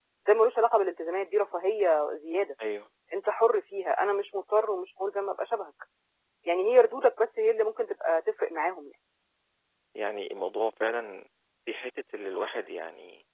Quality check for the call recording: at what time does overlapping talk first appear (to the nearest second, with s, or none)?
none